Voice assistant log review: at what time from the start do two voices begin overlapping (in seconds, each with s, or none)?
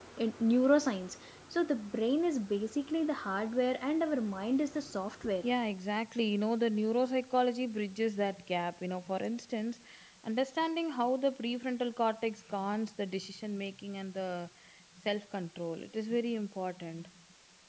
none